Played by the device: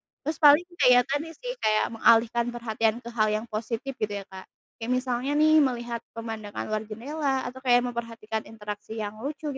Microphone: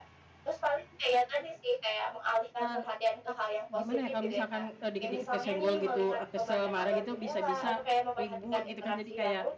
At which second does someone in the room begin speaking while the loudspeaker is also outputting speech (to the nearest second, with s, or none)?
3 s